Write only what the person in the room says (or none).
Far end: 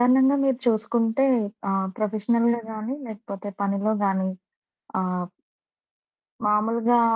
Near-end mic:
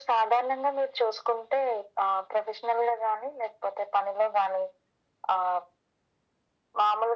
none